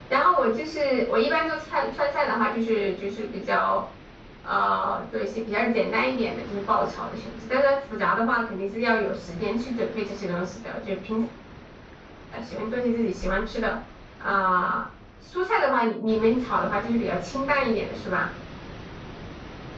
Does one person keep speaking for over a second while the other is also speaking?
No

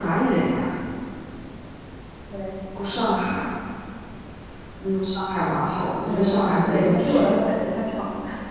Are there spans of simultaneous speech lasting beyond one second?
Yes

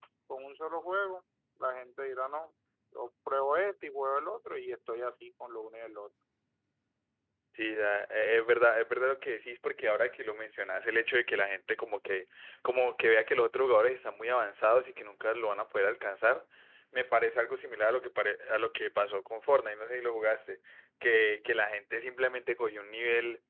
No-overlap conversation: Yes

